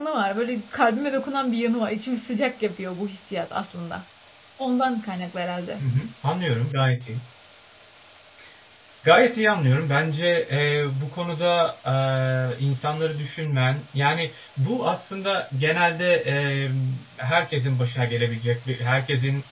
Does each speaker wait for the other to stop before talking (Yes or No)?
Yes